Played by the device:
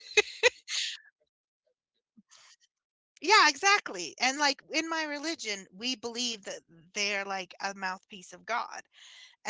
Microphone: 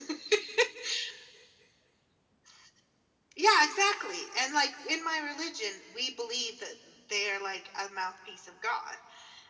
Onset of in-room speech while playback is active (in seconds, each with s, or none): none